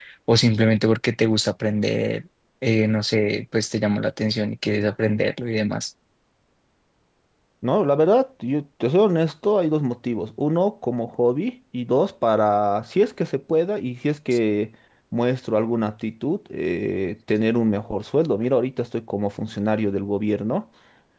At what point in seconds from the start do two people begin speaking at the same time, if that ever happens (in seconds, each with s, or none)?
none